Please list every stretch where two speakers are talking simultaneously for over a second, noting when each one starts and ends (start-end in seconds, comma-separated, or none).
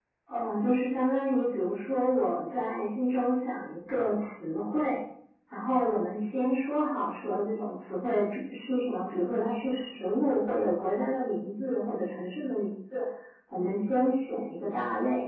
none